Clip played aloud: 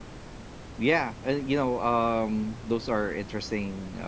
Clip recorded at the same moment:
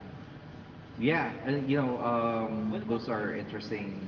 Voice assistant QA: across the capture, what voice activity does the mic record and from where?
both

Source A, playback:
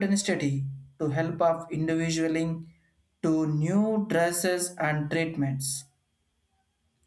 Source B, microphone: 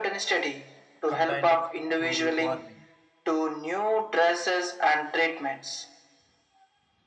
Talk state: both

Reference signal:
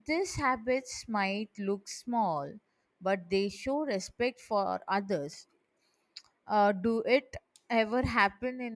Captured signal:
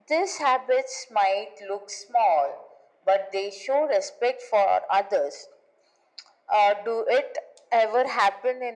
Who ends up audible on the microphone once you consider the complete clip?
echo only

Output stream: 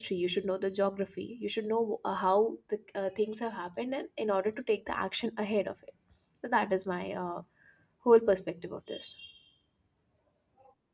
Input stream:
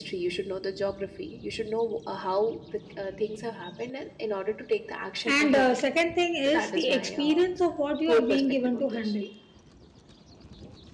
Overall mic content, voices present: both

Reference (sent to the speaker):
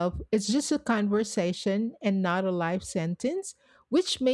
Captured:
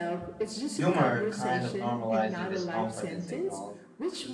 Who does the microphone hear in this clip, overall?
both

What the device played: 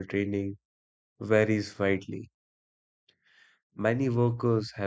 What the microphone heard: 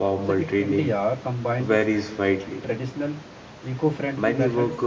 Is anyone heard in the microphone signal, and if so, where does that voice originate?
both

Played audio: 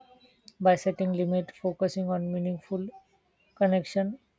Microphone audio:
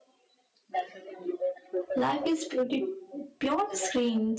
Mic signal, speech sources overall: both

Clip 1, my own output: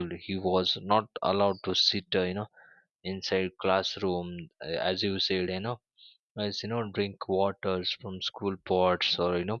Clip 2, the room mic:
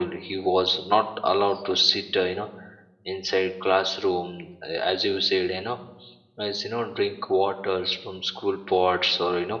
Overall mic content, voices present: echo only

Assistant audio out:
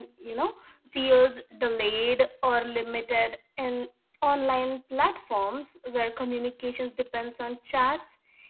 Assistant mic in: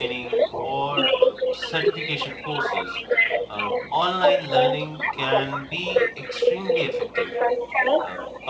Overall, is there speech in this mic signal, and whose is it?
both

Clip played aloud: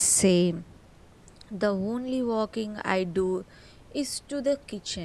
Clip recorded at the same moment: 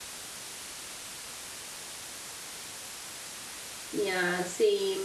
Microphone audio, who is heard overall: user only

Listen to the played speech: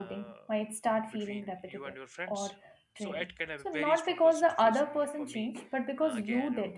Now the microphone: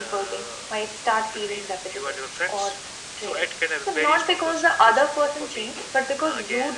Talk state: echo only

